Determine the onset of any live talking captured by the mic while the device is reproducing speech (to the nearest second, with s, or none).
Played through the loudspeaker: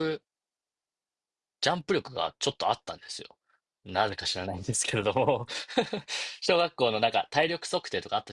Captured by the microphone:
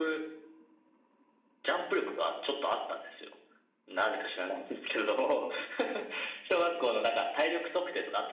none